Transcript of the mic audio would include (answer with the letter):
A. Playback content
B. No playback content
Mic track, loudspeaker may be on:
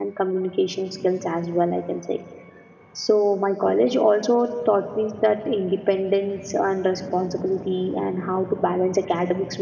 B